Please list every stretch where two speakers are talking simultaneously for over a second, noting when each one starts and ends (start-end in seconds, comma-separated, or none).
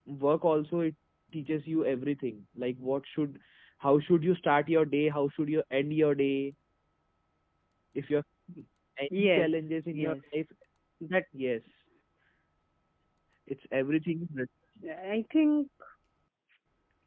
9.2-10.4